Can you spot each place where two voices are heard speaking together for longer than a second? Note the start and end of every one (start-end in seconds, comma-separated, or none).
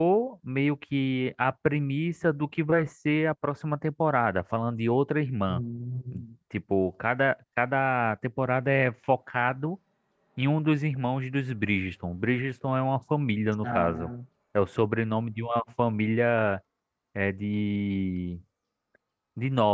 none